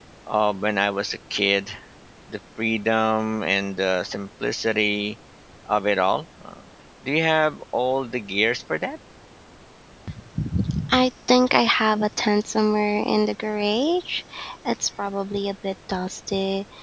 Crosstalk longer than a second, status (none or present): none